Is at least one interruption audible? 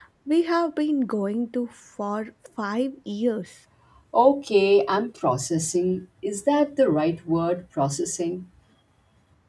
No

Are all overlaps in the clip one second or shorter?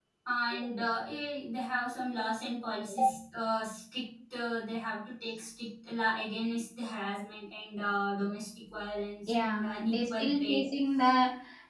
No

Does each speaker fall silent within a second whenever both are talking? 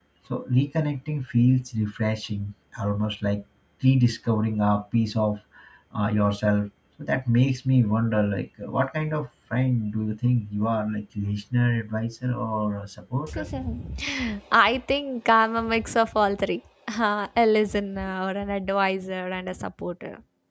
Yes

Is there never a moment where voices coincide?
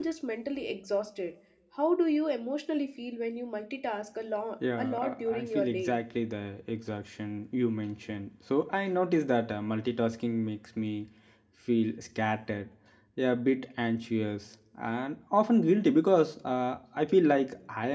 No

